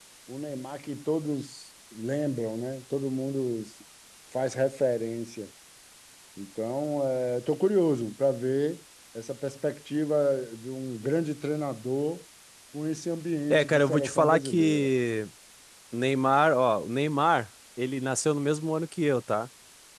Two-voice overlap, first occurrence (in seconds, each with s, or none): 13.5 s